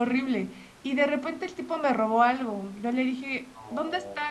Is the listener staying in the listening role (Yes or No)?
Yes